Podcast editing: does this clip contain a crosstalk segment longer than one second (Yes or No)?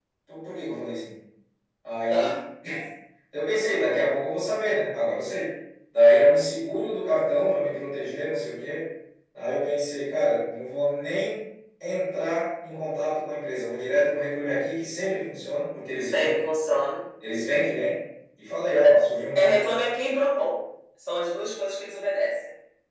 No